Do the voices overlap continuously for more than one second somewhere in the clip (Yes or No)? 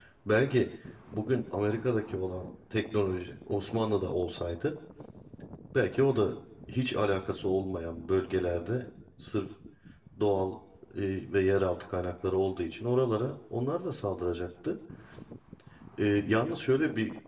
No